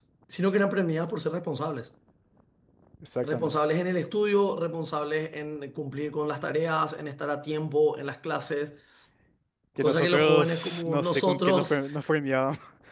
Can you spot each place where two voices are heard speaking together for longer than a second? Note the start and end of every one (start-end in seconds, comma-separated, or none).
9.8-11.8